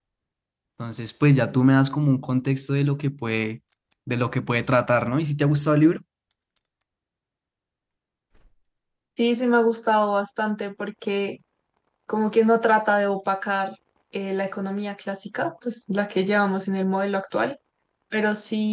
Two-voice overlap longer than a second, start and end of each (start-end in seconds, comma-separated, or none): none